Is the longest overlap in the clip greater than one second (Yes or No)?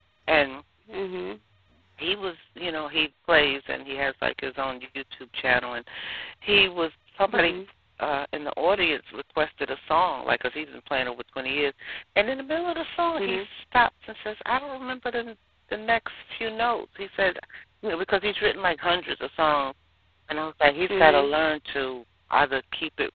No